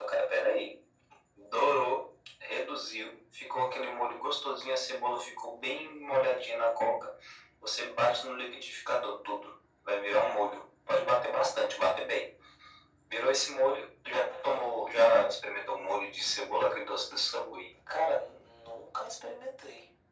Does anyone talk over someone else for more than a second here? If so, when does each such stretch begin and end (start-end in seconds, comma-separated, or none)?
none